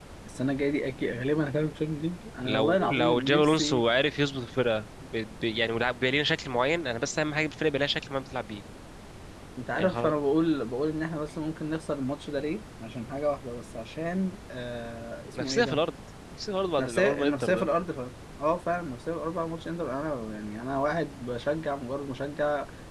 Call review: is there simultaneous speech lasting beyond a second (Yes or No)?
Yes